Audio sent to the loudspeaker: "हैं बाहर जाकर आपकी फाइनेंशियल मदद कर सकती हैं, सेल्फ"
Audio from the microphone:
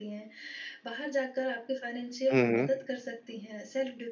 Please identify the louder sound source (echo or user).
user